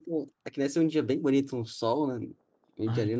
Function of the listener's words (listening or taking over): listening